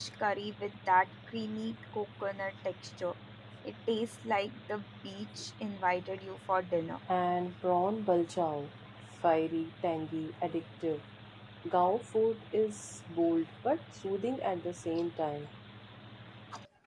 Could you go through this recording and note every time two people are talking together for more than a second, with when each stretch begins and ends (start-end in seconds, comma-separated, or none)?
none